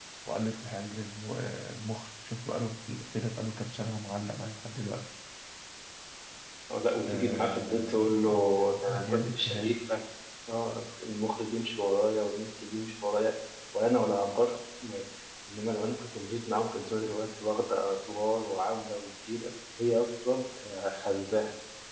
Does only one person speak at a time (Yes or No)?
No